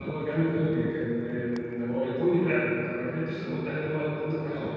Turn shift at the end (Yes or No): Yes